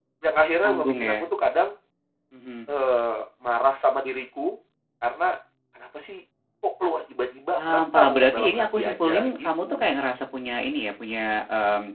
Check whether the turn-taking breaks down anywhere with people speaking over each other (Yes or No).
Yes